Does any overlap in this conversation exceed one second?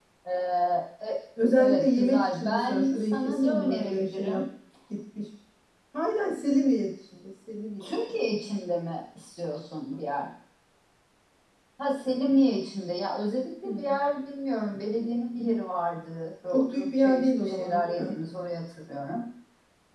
Yes, from 1.6 s

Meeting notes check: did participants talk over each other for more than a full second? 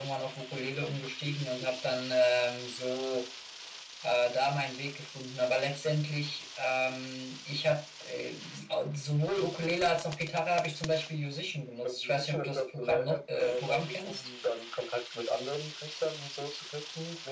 Yes, from 11.8 s

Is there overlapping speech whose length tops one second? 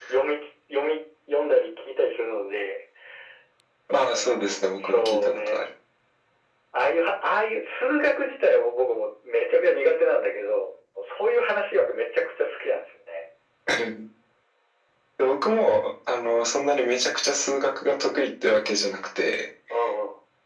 Yes, from 4.1 s

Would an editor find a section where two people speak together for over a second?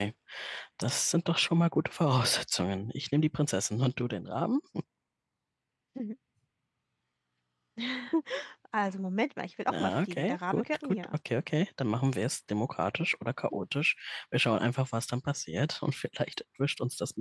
Yes, from 9.7 s

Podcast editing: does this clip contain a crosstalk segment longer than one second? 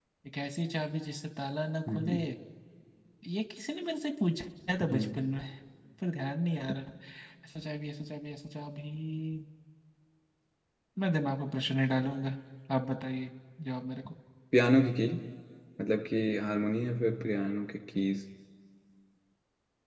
No

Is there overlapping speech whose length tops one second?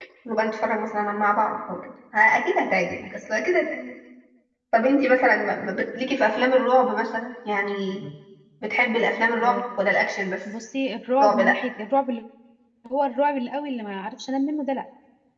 No

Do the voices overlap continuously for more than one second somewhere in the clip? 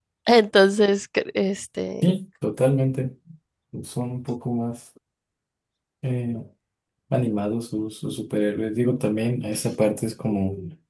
No

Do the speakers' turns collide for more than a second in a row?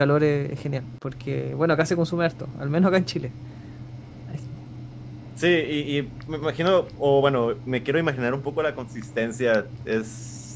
No

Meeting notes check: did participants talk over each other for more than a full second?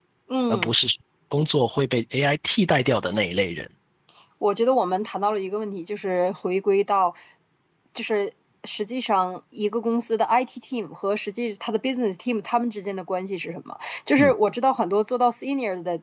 No

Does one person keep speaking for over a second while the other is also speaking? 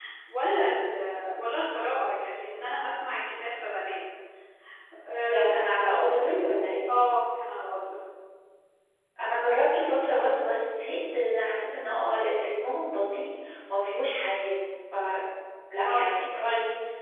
No

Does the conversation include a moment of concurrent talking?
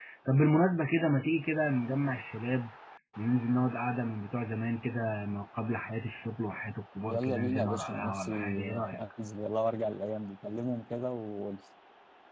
Yes, from 7.1 s

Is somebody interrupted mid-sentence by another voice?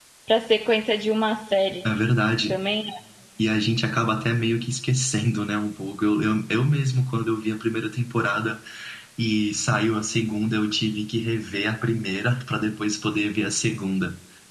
No

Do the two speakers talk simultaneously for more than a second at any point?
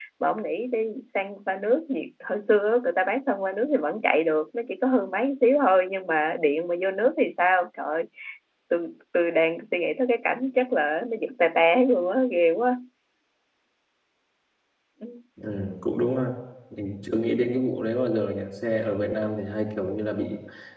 No

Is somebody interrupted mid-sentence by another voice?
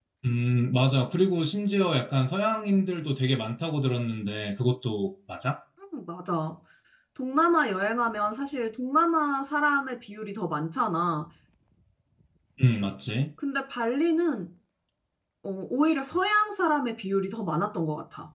No

